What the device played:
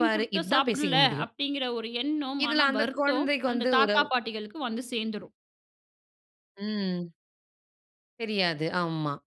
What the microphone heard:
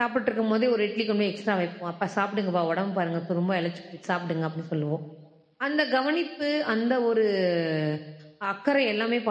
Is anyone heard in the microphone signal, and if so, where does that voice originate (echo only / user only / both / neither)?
user only